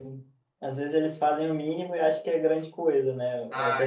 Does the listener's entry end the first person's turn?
No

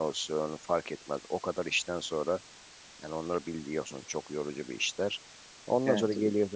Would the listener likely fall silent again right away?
Yes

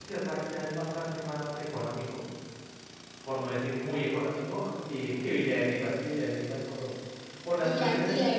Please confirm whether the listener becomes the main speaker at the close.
Yes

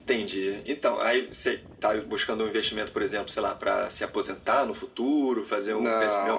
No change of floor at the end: No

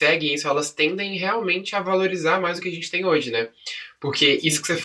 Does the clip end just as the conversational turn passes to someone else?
No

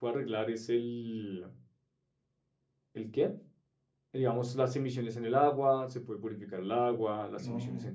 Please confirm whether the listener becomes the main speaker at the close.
No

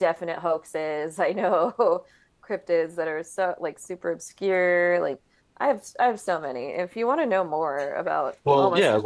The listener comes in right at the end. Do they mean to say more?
Yes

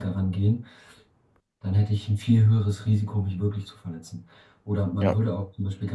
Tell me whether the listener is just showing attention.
Yes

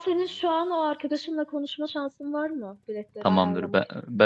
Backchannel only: No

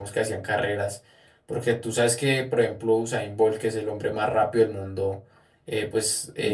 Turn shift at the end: No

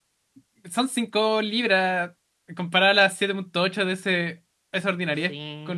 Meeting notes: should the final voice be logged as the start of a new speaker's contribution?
Yes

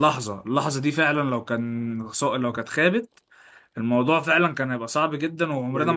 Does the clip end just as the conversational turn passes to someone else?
Yes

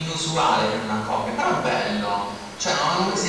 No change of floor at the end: Yes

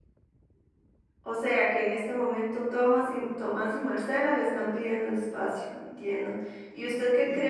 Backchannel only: Yes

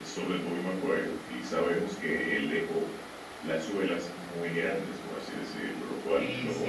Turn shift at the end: Yes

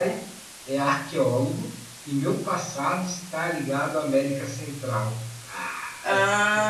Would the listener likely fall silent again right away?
No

